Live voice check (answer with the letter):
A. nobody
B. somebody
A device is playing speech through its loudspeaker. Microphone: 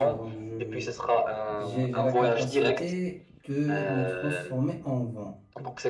B